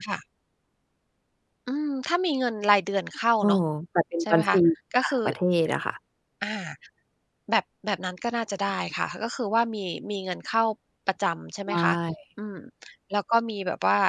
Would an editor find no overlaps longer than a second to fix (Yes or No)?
Yes